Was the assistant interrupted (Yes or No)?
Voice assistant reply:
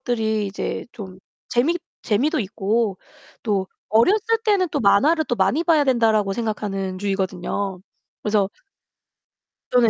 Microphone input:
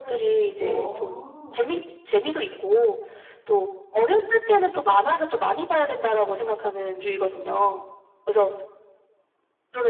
Yes